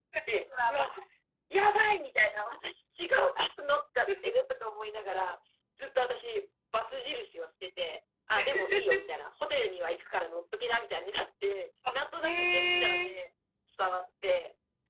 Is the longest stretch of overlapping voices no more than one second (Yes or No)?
No